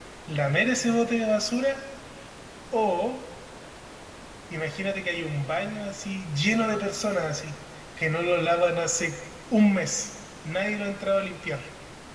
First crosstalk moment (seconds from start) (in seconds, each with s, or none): none